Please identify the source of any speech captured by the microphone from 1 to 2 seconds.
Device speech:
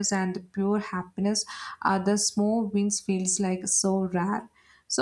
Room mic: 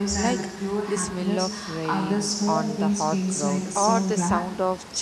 both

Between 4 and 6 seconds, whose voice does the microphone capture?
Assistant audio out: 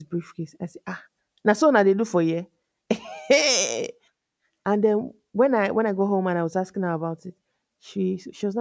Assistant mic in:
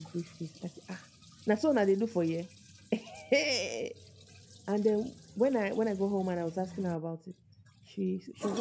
echo only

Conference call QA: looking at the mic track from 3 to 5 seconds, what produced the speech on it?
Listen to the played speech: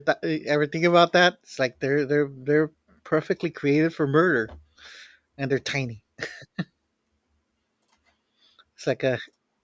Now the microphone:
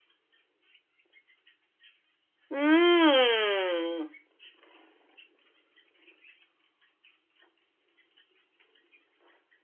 user only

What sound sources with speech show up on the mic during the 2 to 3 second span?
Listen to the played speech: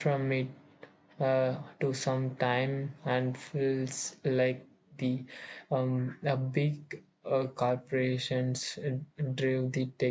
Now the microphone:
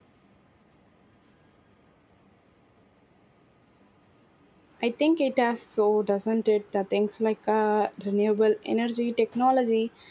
neither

